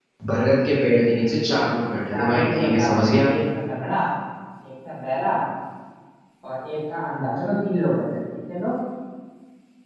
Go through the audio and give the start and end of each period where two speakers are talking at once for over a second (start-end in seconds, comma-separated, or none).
2.1-3.3